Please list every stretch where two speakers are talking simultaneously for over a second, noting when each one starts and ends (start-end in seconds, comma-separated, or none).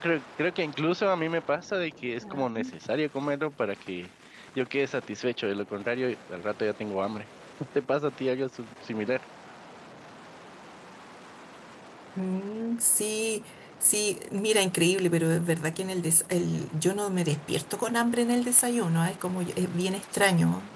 none